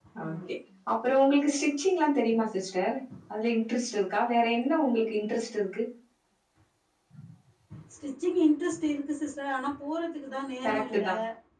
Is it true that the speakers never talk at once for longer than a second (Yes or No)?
Yes